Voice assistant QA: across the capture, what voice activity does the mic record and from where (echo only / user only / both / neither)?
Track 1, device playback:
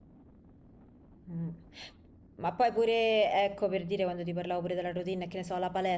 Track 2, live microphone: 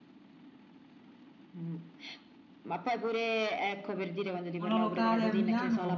both